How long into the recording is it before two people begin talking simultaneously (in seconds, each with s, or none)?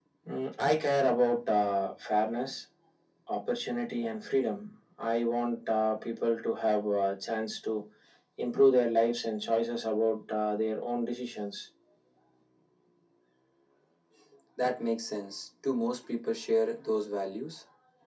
none